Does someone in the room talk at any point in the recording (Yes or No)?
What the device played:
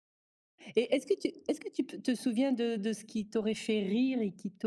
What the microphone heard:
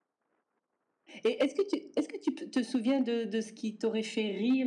No